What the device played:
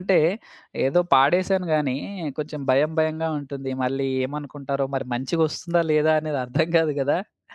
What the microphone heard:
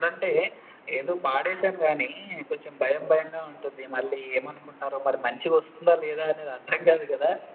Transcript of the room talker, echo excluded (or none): none